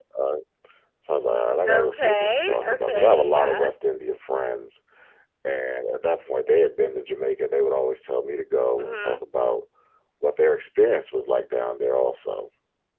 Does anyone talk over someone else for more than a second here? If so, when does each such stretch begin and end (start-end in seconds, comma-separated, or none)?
1.7-3.7